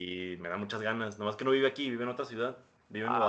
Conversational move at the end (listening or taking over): listening